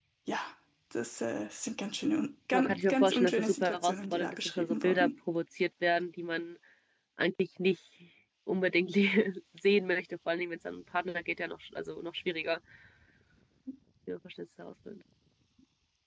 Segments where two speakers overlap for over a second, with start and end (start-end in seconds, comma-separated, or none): 2.5-5.1